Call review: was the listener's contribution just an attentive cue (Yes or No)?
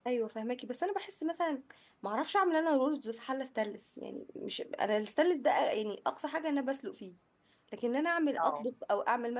Yes